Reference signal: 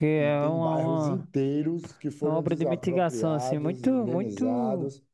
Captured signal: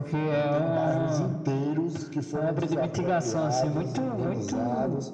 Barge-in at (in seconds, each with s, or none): none